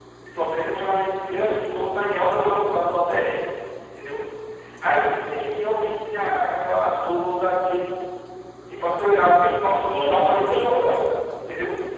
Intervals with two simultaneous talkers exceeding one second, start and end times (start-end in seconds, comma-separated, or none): 9.8-11.1